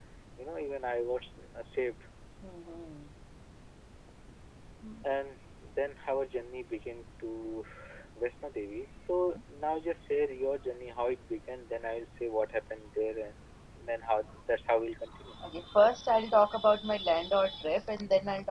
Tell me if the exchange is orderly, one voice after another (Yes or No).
Yes